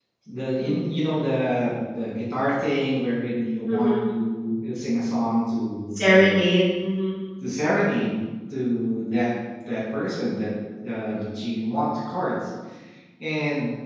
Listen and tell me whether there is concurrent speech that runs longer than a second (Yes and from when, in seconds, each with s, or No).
No